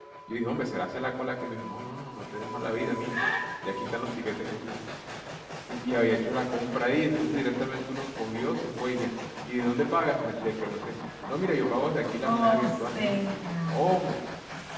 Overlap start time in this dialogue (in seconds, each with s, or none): 12.2 s